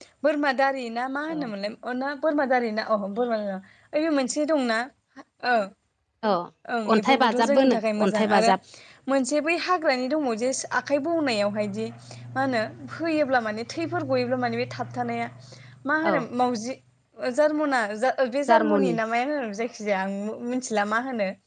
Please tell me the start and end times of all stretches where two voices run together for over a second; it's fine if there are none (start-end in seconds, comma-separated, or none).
6.9-8.5